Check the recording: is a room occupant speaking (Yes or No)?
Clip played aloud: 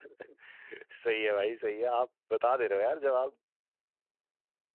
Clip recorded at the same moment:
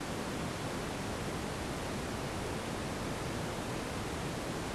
No